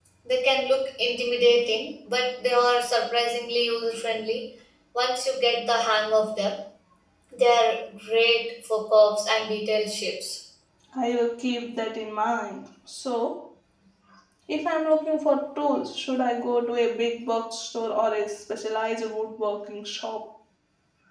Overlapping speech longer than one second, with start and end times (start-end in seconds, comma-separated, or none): none